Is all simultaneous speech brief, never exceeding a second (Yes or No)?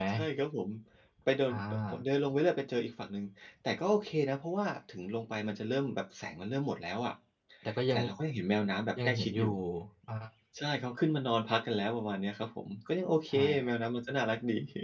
Yes